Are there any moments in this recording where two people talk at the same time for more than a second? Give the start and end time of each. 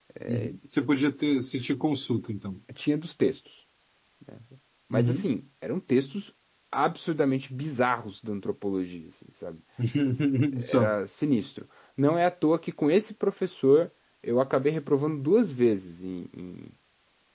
none

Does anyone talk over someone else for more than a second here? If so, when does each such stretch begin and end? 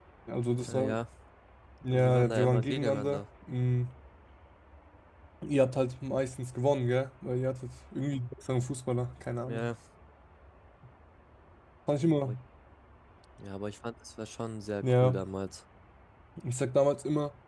1.9-3.2

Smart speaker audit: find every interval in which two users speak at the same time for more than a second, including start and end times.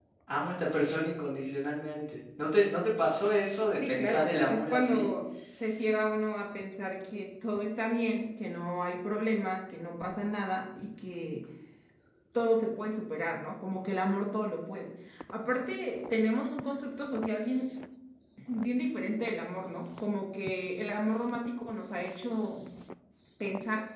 3.9-5.1

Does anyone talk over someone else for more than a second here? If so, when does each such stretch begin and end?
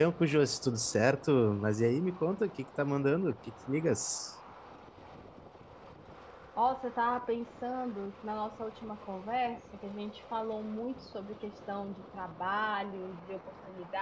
none

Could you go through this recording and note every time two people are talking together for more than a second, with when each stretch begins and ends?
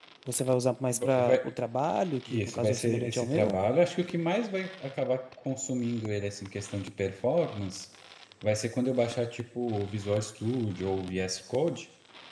2.3-3.6

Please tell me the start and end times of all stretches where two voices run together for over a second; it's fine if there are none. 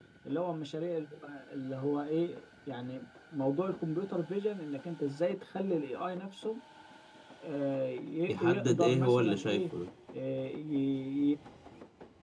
8.3-9.6

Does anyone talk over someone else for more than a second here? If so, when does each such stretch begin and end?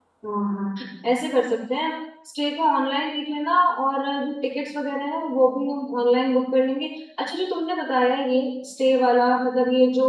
none

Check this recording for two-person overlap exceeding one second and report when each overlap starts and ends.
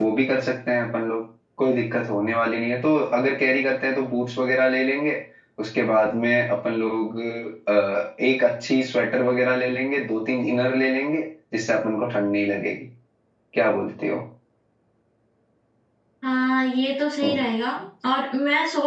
none

